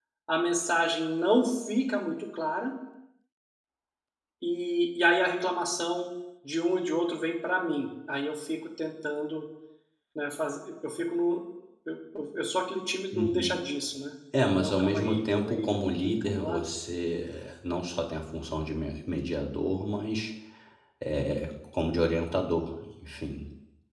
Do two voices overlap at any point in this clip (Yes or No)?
Yes